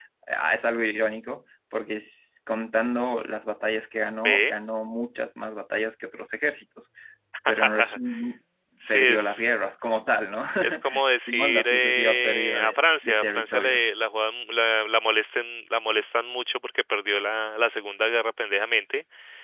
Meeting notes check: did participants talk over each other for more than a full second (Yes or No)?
Yes